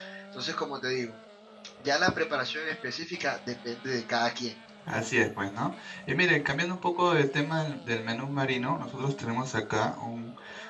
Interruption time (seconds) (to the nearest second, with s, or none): none